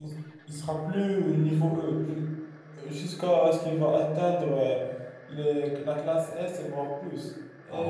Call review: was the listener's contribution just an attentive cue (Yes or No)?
Yes